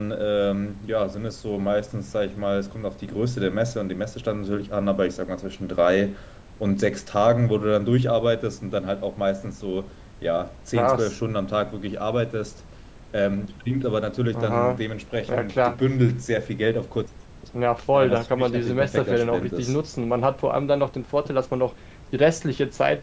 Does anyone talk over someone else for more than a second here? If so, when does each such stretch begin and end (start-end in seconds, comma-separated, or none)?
17.9-19.7